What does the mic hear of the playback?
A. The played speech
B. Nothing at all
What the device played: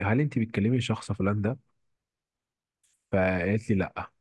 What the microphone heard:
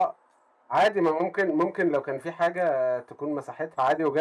B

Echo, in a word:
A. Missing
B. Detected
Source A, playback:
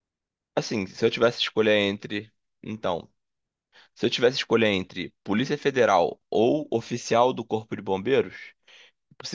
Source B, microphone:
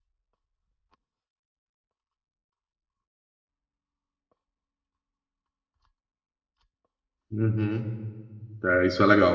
A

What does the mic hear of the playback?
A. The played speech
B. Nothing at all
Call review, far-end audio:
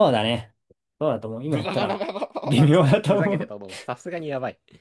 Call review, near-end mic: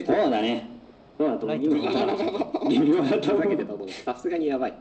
A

